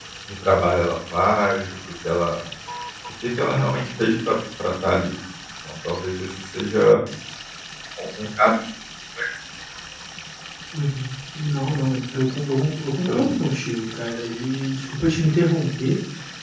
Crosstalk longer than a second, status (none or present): none